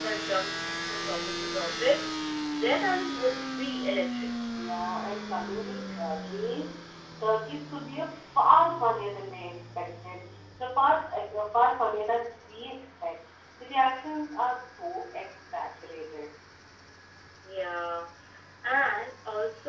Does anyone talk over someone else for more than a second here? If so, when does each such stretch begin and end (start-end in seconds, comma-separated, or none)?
none